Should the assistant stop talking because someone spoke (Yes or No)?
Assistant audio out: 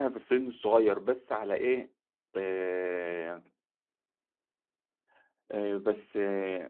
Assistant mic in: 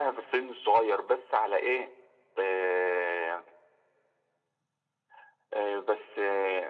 No